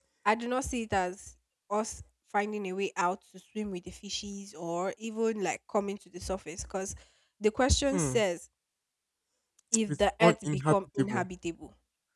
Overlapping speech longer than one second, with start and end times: 9.9-11.2

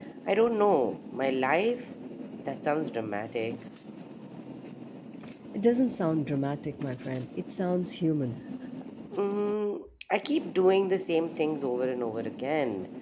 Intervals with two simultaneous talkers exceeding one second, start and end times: none

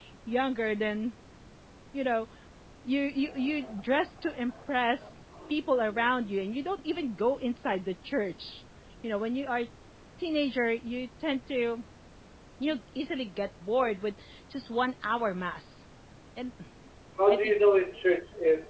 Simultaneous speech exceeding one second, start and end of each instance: none

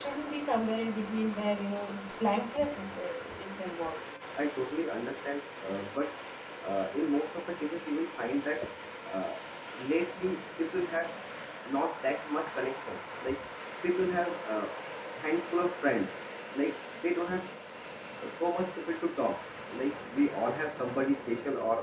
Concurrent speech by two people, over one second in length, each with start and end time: none

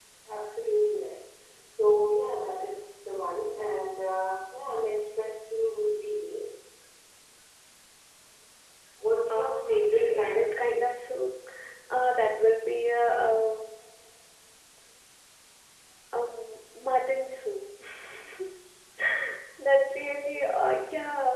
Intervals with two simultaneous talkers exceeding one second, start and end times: 9.3-10.9

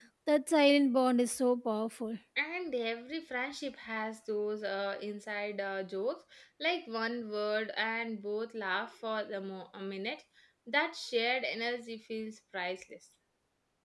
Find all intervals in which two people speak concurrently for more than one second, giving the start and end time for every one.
none

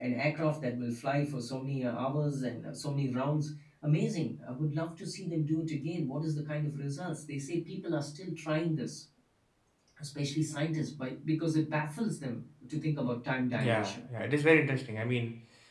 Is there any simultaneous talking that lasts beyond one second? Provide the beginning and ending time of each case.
none

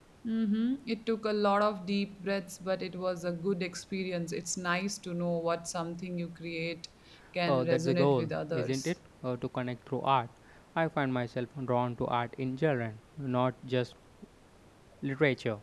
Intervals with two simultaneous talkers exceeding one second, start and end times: 7.5-8.9

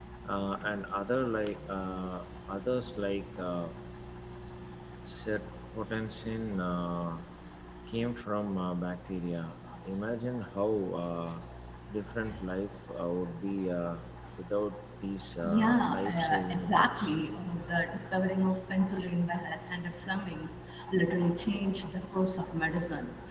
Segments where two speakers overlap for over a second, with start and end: 15.4-17.1

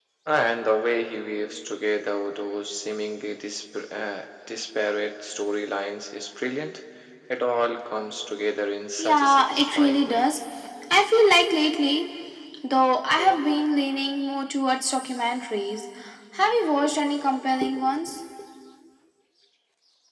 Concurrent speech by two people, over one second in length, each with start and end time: 9.0-10.2

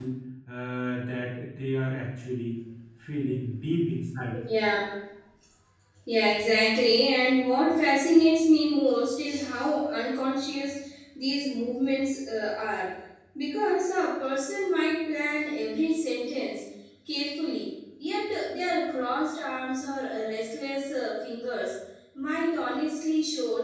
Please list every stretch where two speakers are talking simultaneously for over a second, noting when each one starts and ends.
none

